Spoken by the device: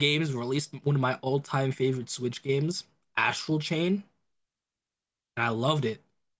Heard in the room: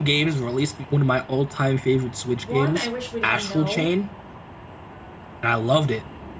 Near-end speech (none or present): present